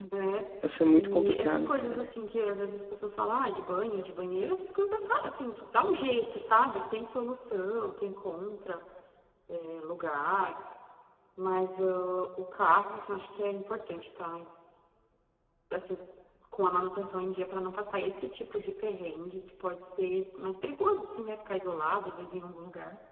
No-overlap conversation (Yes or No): No